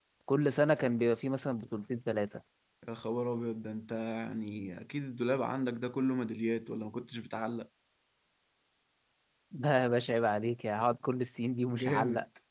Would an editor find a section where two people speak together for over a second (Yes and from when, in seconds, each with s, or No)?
No